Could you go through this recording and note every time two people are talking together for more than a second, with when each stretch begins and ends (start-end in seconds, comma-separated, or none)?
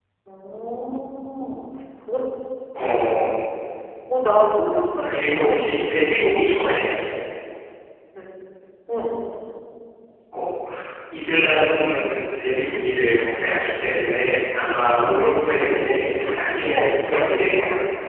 5.1-6.3, 15.5-17.3